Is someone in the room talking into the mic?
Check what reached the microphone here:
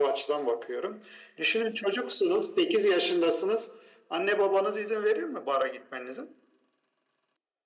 No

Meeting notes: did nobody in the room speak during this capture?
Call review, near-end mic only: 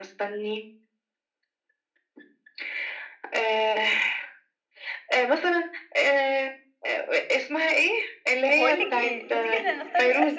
No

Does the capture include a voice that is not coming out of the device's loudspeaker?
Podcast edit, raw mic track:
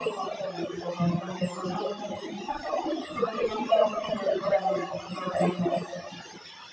No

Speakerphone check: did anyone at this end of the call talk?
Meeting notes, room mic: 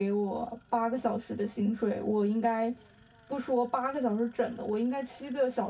Yes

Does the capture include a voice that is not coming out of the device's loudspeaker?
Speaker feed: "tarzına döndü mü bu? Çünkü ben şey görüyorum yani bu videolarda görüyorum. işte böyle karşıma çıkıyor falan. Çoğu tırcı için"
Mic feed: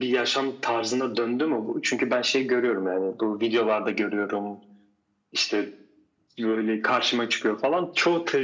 No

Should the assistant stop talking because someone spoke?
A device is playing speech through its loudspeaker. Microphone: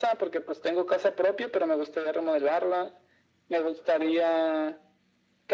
No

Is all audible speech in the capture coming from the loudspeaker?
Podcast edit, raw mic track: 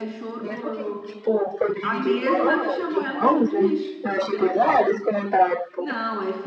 No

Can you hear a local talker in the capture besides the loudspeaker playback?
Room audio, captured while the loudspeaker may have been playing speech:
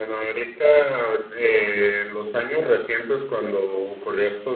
No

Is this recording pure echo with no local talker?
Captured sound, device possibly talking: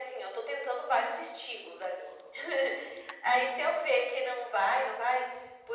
Yes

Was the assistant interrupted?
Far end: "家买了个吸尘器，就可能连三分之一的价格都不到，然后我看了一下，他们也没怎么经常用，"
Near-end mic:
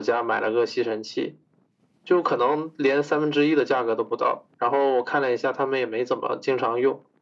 No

